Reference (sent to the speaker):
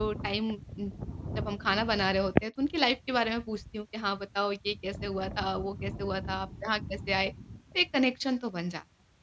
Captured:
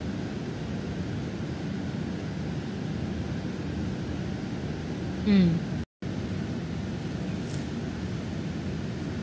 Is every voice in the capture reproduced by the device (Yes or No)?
No